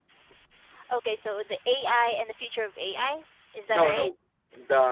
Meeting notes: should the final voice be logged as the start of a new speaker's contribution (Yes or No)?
Yes